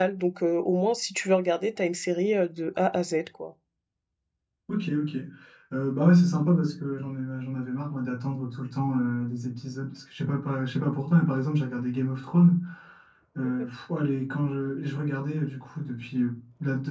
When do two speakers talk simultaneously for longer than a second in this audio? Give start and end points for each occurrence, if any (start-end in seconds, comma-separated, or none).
none